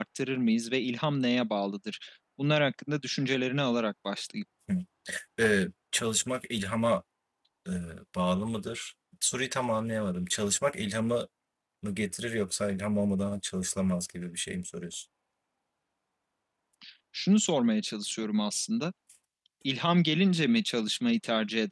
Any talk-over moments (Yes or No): No